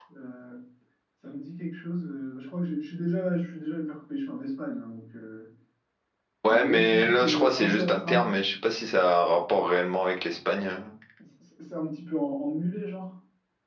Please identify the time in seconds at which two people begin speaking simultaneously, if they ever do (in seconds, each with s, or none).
6.5 s